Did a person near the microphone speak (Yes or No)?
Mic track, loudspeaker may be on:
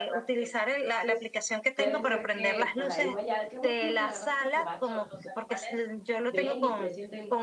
Yes